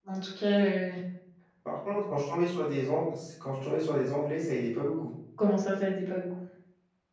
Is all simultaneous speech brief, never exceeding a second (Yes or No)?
Yes